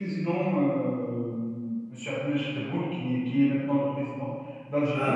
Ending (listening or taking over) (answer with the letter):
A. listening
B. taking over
A